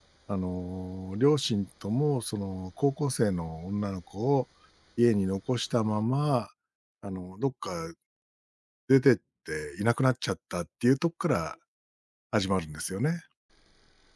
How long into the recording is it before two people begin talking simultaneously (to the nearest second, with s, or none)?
none